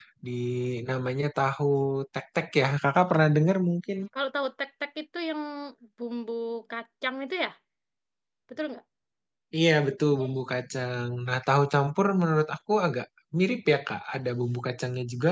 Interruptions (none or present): none